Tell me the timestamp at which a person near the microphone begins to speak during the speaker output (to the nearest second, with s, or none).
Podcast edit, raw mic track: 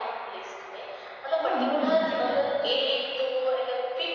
1 s